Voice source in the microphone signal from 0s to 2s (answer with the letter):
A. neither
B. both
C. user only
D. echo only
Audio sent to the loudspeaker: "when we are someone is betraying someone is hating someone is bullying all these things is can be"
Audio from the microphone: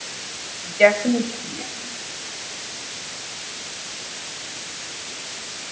C